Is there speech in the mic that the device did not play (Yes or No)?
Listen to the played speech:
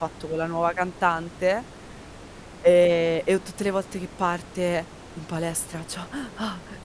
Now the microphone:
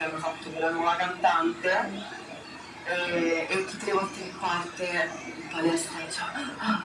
Yes